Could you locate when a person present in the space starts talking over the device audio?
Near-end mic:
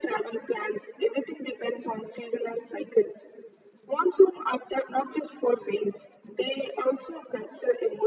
none

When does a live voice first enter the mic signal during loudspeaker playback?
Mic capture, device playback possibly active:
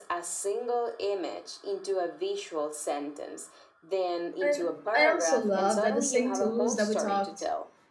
4 s

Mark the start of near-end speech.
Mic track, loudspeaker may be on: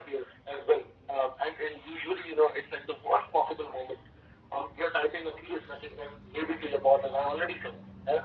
none

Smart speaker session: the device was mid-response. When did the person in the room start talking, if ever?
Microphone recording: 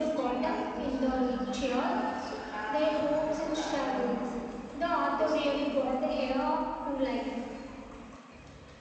none

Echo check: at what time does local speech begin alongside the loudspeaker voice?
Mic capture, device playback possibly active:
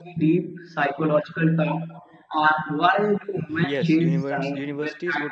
4 s

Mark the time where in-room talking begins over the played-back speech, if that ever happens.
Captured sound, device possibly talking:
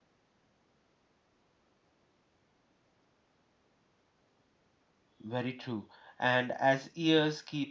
5 s

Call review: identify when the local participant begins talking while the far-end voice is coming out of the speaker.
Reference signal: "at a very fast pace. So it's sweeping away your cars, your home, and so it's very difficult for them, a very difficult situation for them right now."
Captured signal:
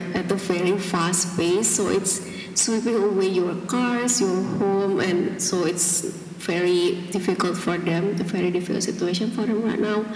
none

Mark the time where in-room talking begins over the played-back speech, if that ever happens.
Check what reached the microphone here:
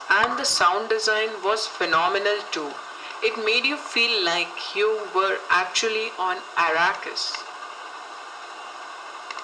none

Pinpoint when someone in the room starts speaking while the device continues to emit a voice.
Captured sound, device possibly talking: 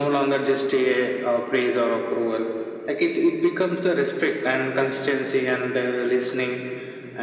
none

